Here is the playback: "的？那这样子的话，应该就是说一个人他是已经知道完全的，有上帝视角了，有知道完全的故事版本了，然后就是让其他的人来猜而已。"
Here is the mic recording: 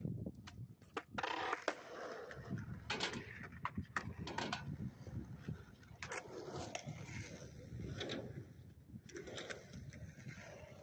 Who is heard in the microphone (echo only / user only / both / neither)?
neither